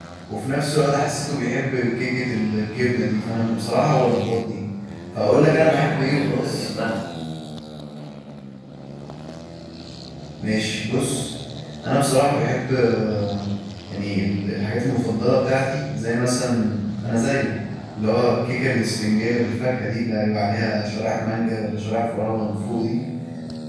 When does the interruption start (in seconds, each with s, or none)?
5.2 s